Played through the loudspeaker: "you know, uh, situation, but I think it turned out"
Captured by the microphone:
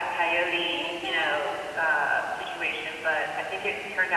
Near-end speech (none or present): present